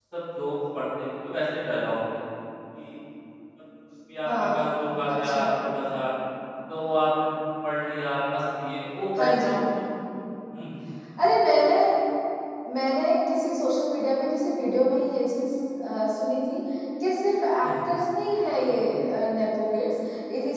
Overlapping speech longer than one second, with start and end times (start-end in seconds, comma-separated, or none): none